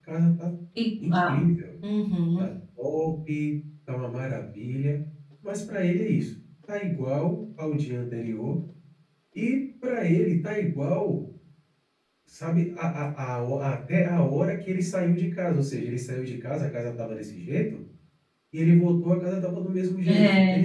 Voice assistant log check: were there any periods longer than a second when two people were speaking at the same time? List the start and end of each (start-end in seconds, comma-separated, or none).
none